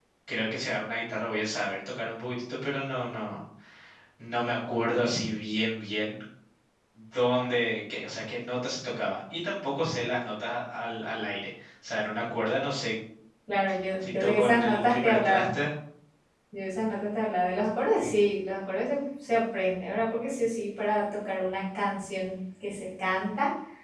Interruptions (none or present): present